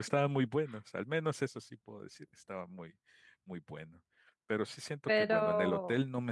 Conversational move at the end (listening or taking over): listening